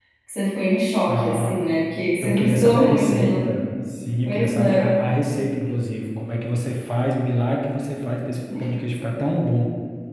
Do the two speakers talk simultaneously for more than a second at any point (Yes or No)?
Yes